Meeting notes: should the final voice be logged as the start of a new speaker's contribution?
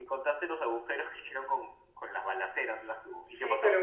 Yes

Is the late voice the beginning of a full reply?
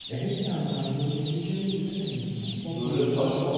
Yes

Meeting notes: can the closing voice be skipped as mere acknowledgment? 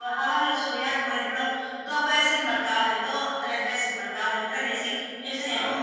Yes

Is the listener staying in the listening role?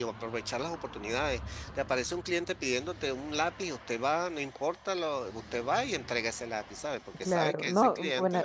No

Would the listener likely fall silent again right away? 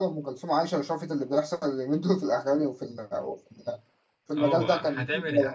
No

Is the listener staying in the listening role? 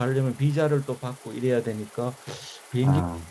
Yes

